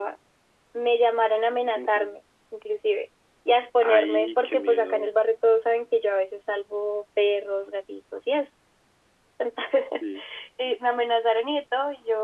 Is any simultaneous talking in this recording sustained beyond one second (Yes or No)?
Yes